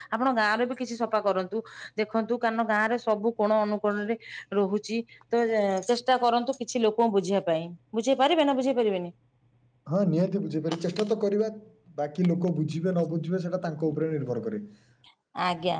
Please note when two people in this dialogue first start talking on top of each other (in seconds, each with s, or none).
none